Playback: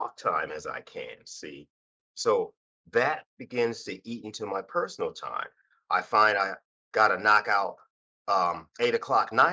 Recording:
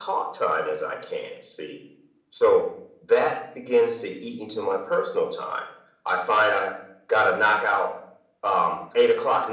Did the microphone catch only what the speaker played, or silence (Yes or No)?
Yes